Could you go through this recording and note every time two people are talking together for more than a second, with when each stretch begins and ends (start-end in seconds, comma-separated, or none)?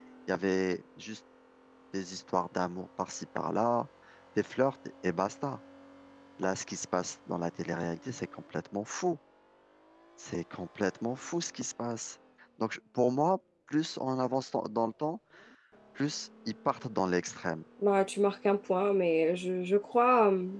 none